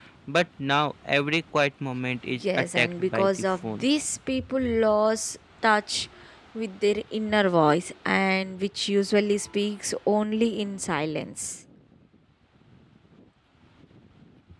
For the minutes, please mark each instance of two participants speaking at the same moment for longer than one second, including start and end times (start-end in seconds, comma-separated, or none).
2.3-3.8